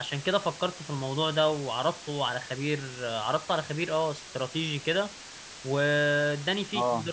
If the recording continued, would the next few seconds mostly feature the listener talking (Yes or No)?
No